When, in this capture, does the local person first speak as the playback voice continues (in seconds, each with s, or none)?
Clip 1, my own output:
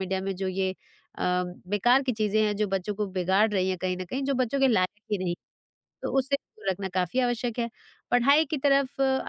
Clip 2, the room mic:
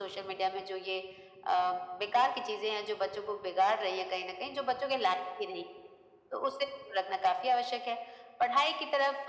none